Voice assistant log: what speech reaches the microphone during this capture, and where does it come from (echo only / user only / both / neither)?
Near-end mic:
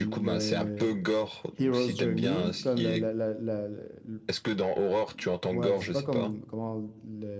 both